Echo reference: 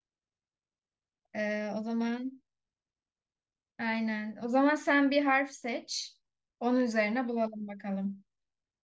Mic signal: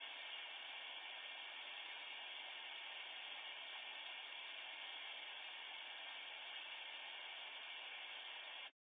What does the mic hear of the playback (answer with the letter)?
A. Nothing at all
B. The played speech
A